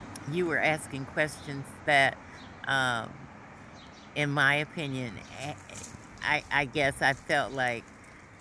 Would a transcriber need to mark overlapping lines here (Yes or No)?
No